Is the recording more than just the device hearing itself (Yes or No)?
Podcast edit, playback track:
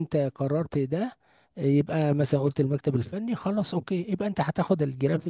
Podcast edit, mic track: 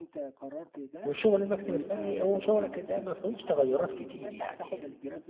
Yes